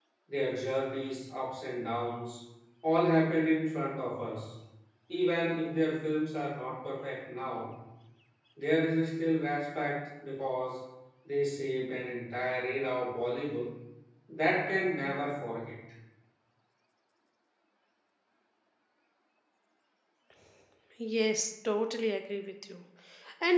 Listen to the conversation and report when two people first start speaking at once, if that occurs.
none

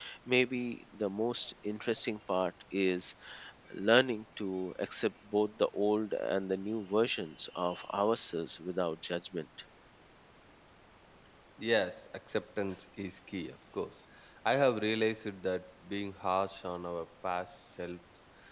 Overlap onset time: none

